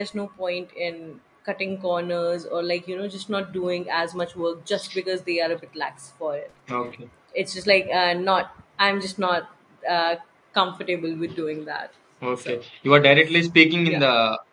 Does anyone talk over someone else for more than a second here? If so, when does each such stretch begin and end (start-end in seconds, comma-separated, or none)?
none